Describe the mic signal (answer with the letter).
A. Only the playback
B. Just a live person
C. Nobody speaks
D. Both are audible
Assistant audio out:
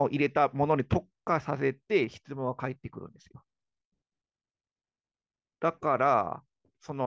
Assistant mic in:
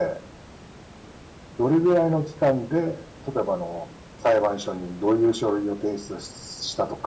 B